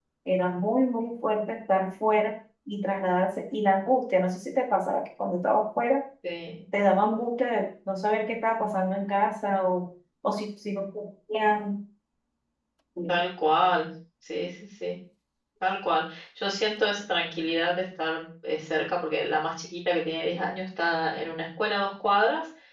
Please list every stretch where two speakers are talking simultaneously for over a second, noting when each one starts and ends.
none

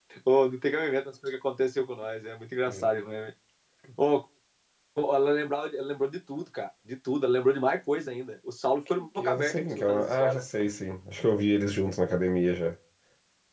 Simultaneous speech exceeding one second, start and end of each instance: 8.9-10.4

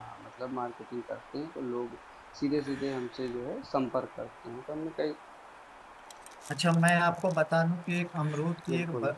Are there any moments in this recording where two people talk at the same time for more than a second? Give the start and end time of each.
none

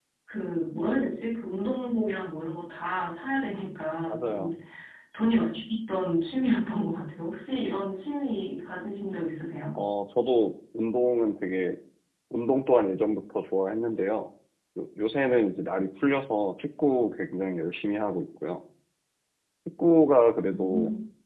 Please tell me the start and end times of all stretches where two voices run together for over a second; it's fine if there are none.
none

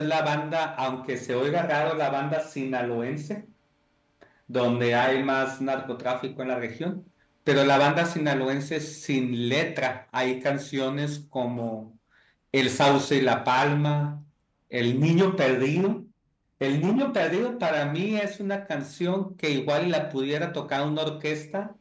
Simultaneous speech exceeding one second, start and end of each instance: none

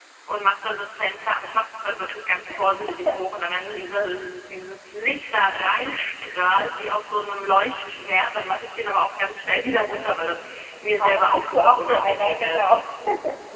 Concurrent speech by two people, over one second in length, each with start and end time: 11.0-12.6

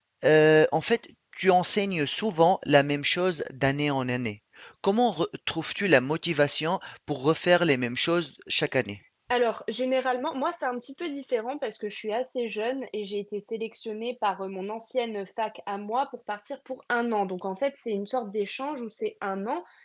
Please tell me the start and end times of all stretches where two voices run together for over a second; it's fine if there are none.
none

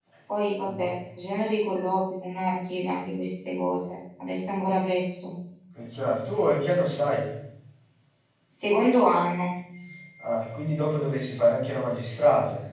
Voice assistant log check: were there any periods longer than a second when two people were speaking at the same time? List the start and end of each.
none

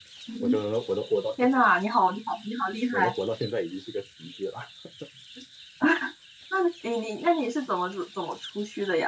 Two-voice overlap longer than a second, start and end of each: none

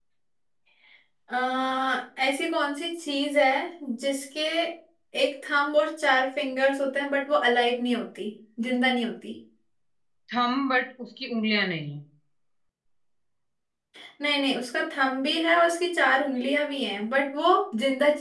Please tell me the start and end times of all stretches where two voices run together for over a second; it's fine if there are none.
none

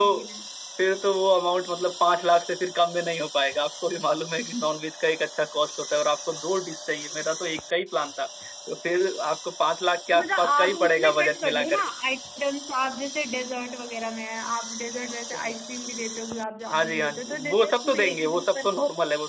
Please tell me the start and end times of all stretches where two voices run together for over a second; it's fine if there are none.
10.1-11.8, 16.7-18.7

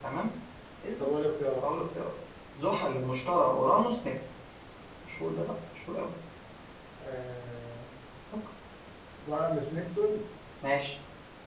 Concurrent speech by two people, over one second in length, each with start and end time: none

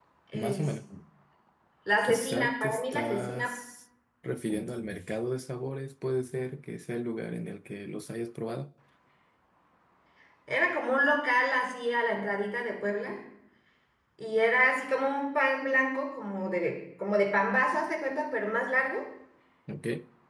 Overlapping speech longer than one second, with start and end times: 2.0-3.5

